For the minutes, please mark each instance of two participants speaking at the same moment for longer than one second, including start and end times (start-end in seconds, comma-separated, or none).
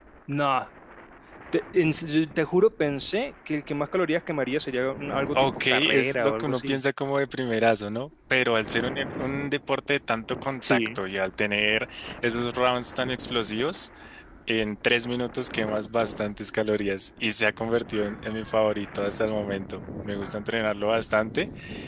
5.4-6.8